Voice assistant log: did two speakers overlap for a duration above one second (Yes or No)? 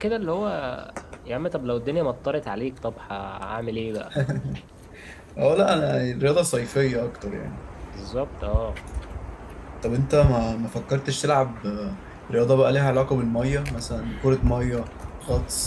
No